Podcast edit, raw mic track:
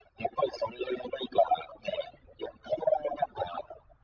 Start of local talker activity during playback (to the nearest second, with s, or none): none